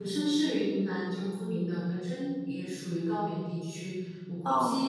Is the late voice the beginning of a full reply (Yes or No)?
No